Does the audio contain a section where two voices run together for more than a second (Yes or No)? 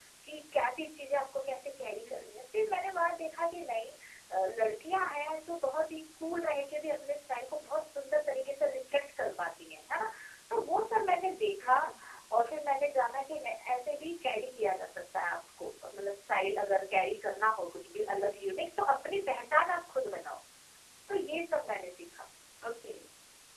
No